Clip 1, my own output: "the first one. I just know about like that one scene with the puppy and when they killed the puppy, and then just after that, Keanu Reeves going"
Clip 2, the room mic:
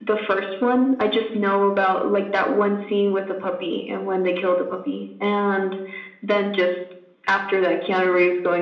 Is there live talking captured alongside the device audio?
No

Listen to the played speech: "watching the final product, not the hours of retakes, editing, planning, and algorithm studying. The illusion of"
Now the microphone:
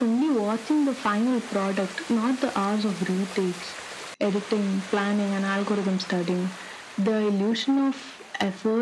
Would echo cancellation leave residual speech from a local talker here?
No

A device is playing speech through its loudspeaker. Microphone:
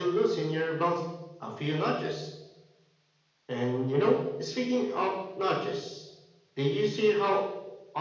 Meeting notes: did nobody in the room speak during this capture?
Yes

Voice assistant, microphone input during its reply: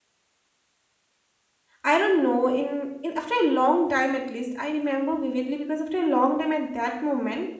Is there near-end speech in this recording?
Yes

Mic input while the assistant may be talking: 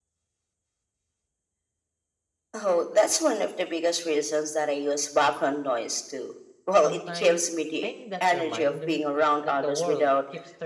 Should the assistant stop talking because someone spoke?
Yes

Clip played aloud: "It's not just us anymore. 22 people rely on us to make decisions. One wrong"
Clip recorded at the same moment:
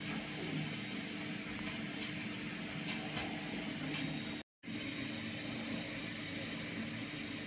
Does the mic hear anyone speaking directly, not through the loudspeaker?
No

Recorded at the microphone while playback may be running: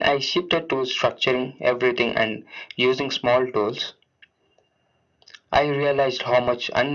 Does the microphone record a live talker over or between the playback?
No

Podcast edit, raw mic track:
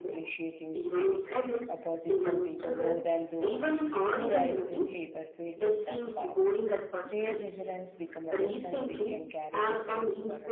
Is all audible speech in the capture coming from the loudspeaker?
No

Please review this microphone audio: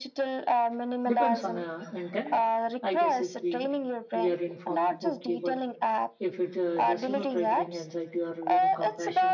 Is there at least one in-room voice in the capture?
Yes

